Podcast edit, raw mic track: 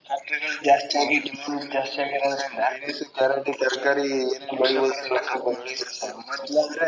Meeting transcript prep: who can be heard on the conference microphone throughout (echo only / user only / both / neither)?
echo only